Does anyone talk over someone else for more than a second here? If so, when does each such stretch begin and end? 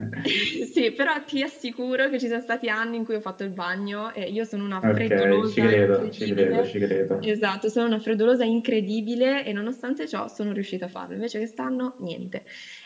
4.8-6.7

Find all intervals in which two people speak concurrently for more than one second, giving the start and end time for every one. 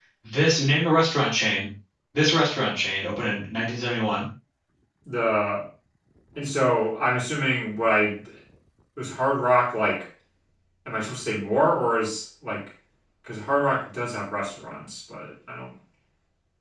none

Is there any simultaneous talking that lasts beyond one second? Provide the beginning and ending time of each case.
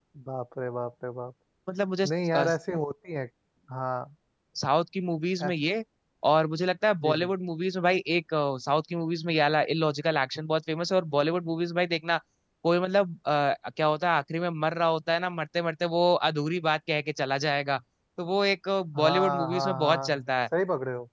19.0-20.2

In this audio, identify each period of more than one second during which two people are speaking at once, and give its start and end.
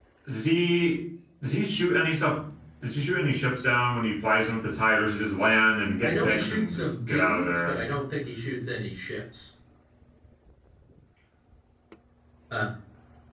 6.0-7.8

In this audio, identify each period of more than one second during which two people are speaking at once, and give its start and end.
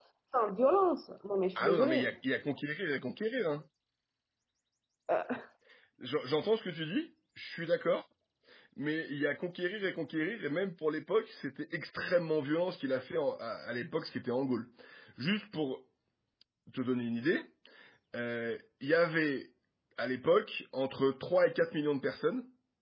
none

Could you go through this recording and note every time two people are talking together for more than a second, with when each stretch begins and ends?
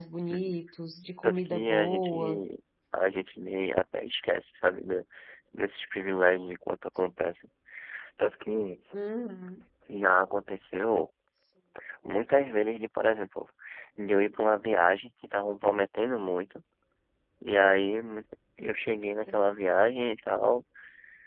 1.2-2.4

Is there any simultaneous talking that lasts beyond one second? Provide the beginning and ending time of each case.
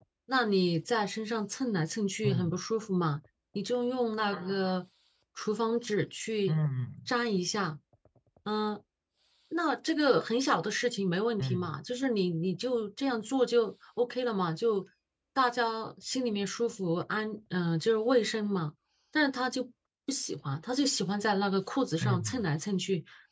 none

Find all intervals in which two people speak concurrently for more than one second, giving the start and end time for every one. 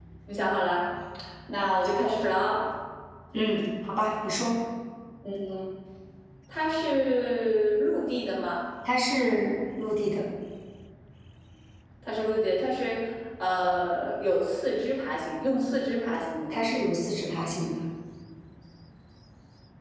none

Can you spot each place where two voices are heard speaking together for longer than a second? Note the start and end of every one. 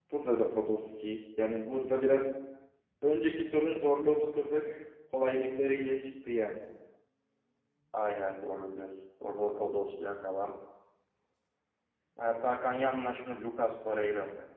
none

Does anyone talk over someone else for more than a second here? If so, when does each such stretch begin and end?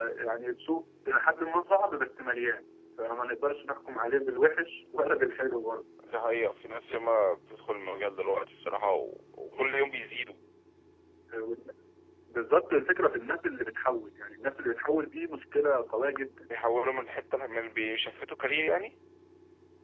none

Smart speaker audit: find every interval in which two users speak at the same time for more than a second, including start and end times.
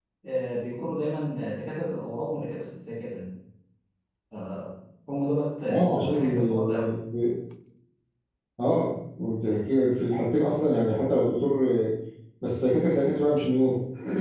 5.7-6.9

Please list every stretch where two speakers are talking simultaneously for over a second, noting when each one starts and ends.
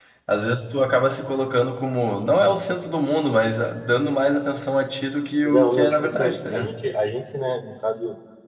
5.4-6.7

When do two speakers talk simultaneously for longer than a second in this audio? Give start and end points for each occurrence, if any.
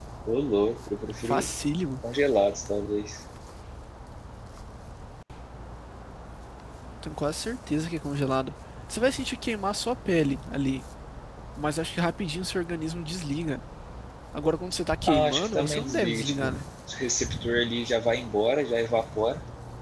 15.1-16.6

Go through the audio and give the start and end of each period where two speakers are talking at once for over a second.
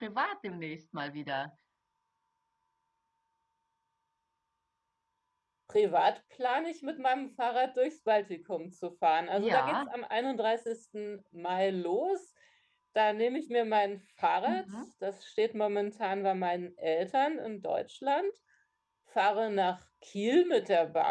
none

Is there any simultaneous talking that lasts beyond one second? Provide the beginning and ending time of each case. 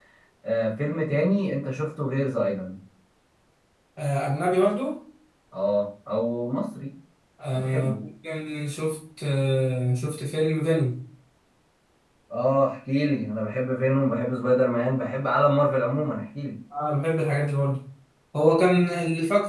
none

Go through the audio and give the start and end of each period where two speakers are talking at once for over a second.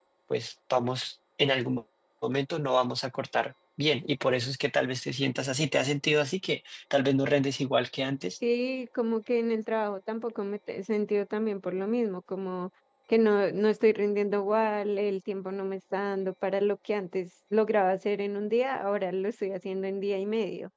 none

